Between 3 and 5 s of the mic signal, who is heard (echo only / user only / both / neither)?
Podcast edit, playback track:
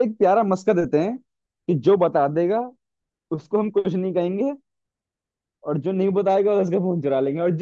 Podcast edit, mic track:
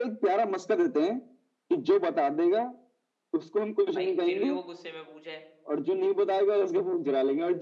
both